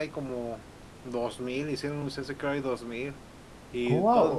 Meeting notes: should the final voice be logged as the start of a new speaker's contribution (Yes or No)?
Yes